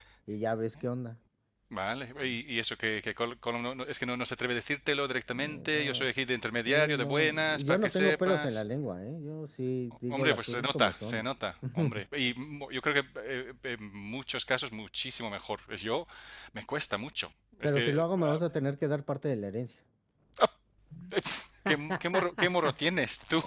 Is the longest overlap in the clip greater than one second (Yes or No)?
Yes